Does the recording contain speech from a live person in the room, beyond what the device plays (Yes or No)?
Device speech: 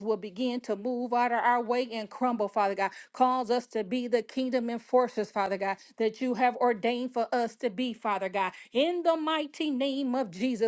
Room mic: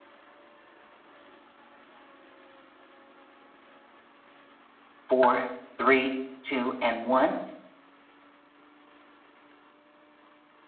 Yes